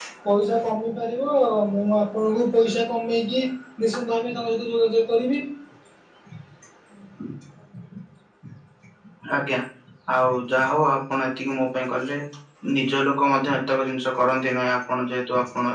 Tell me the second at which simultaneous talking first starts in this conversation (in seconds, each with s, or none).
none